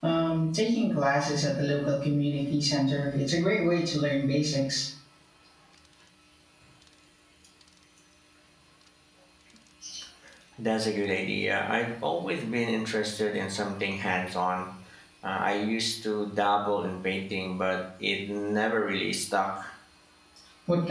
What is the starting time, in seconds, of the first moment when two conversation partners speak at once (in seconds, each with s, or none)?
none